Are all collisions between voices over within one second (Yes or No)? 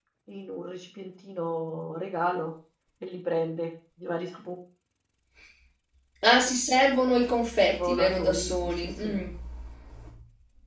No